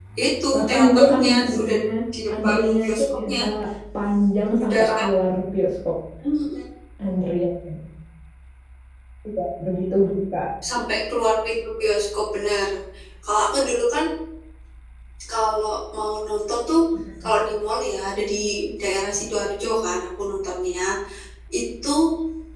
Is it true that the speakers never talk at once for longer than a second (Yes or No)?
No